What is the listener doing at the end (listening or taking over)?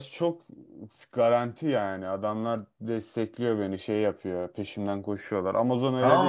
taking over